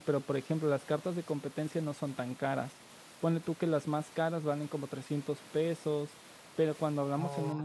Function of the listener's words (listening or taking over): listening